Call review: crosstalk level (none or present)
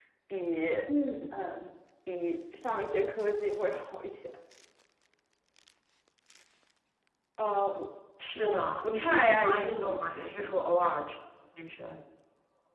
present